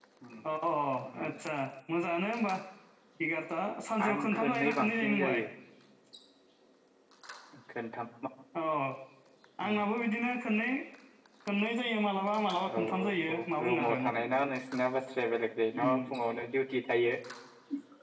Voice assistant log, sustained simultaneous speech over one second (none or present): present